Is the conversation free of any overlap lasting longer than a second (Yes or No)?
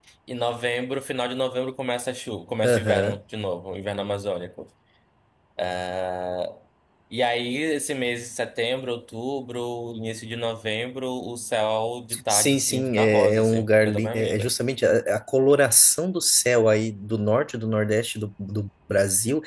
No